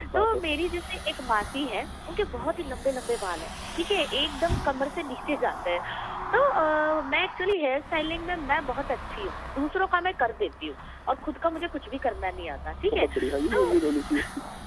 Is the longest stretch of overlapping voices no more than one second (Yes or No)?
Yes